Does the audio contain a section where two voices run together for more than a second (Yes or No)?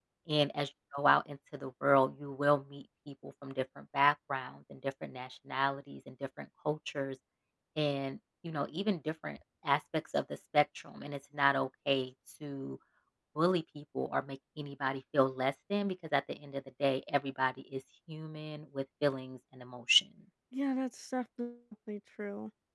No